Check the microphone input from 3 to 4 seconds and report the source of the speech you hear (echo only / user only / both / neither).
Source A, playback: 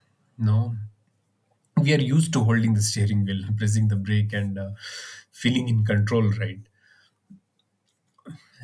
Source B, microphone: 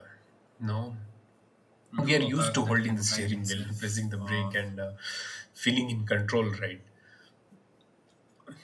both